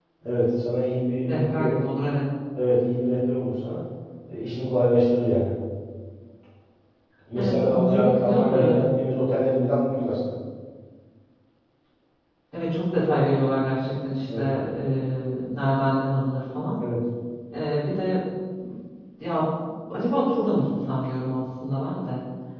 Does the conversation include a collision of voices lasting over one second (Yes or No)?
Yes